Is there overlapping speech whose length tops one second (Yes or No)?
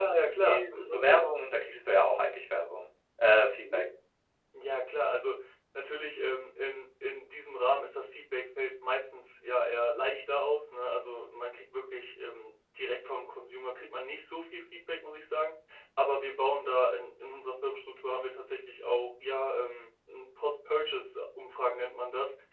Yes